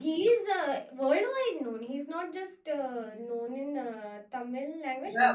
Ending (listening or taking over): taking over